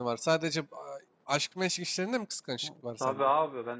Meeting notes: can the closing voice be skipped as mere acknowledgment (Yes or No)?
No